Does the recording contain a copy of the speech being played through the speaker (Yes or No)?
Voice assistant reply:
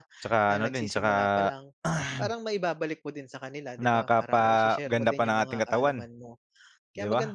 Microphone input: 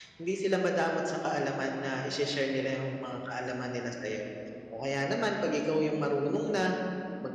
No